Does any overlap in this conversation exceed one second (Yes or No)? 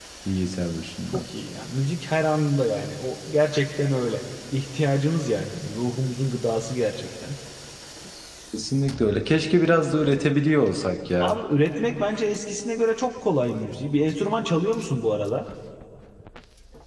No